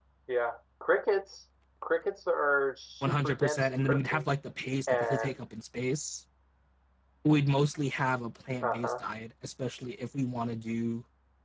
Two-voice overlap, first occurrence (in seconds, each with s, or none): 3.0 s